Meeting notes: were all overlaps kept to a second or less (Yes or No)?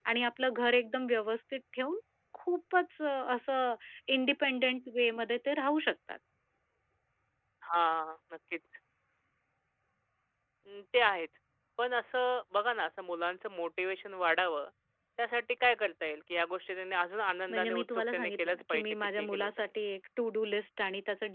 No